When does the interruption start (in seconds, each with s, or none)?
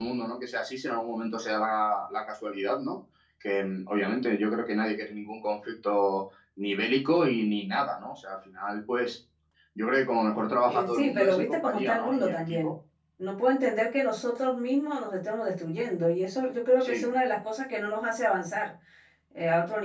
10.7 s